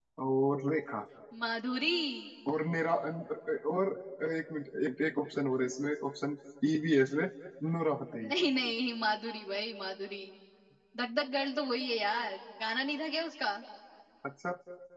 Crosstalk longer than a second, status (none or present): none